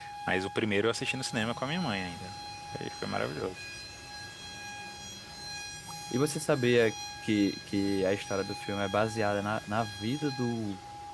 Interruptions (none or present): none